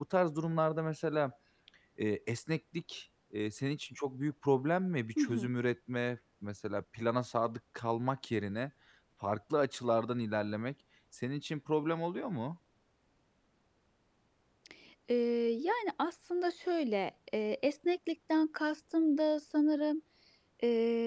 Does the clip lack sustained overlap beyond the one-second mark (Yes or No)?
Yes